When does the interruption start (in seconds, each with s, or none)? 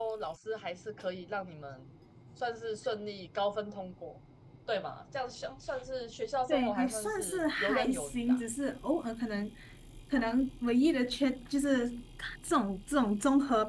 6.5 s